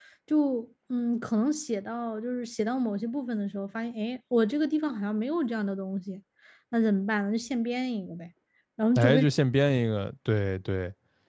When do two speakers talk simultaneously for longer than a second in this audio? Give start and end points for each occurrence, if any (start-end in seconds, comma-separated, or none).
none